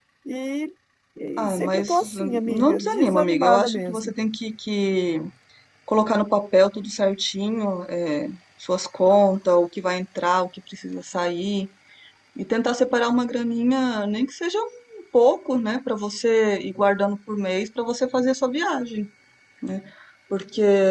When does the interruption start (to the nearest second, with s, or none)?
1 s